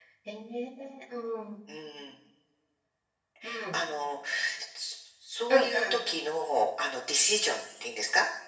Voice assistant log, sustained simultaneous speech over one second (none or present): none